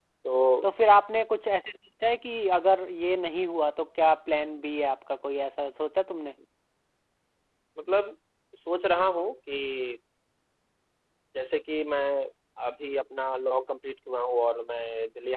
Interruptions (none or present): none